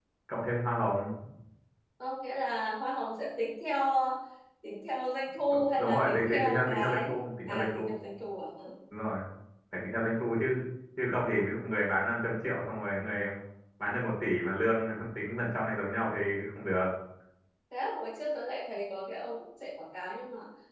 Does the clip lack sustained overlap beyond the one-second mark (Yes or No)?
No